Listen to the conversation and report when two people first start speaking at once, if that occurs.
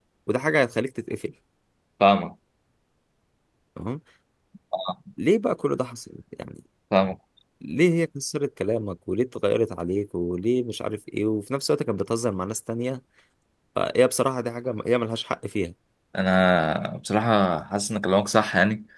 none

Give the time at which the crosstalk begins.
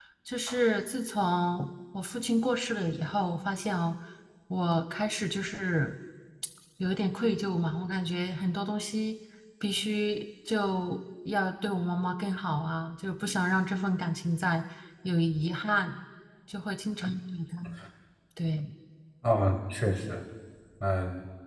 none

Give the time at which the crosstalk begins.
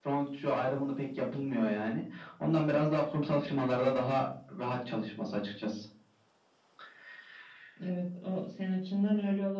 none

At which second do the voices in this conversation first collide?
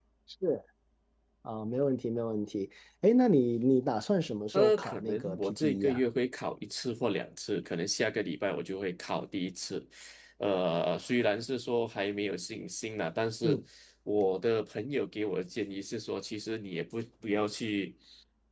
4.5 s

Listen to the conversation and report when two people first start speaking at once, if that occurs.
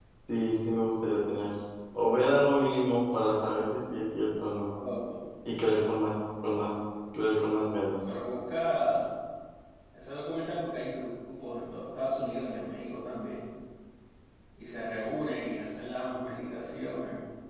none

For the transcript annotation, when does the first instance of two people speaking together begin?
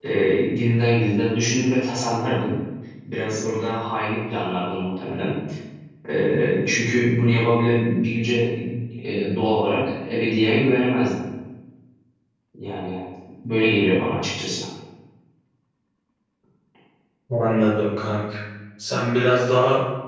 none

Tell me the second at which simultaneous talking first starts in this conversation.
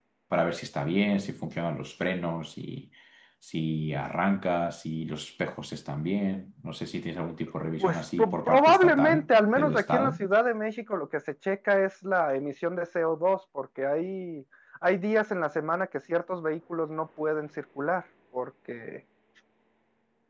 7.7 s

